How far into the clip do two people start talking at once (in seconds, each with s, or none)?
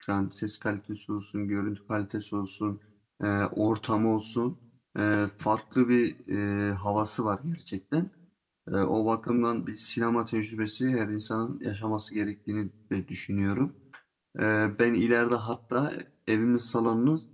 none